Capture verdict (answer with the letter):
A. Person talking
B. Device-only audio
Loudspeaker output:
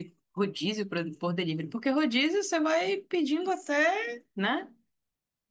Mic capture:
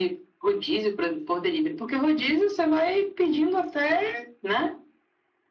B